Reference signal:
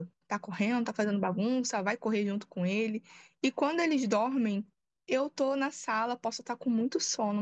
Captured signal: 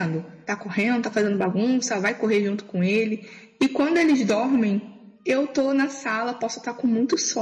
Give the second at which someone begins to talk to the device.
none

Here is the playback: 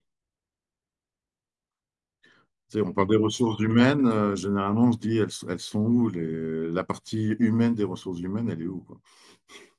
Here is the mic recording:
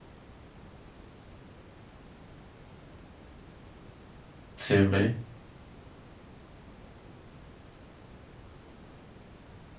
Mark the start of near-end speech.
5 s

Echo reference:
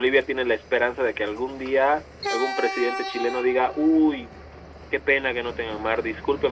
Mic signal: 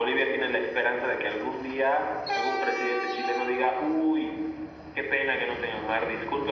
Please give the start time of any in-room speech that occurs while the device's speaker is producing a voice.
none

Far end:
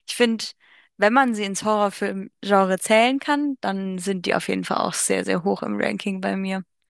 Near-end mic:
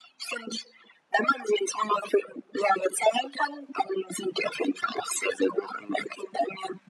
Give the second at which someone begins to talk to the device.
none

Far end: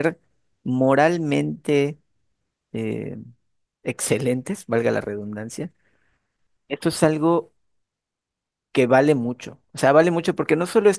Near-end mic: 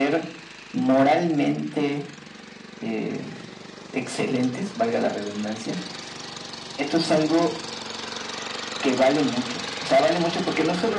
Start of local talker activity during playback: none

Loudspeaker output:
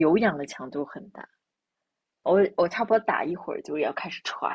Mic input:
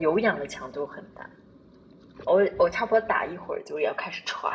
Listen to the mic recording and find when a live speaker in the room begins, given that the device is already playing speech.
none

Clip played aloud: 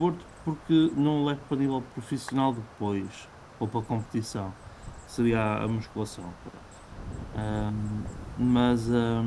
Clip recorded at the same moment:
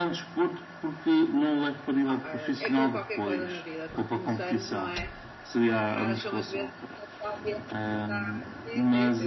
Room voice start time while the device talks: 2 s

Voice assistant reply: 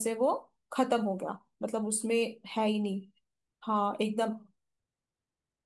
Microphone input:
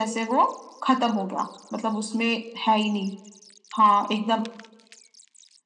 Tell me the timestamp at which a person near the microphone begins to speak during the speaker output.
none

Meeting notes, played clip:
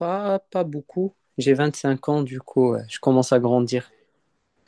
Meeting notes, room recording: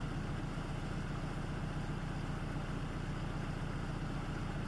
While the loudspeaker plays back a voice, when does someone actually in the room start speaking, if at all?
none

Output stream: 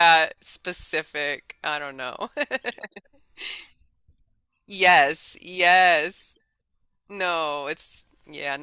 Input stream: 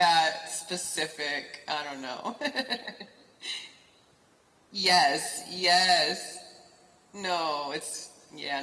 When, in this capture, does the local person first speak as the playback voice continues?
none

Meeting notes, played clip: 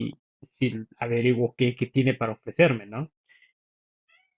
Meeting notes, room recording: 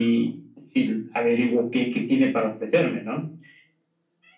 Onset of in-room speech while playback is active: none

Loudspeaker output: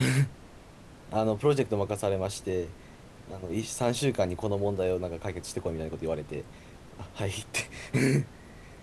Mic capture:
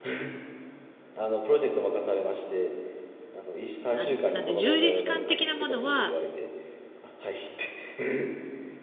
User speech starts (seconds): 4 s

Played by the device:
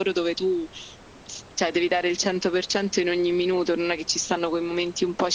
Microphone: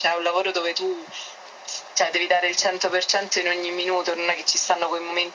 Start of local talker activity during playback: none

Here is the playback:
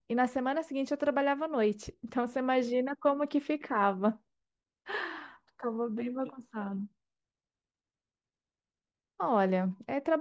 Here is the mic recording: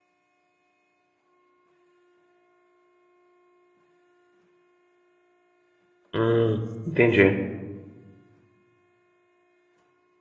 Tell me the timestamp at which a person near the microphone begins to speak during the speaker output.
6 s

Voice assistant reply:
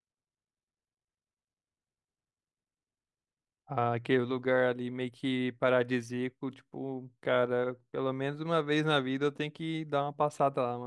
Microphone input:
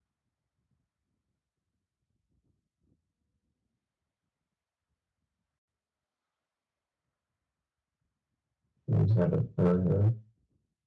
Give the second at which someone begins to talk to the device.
9 s

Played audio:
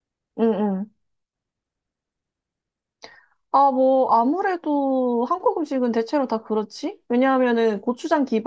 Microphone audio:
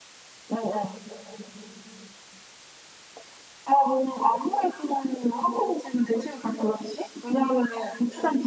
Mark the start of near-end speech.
none

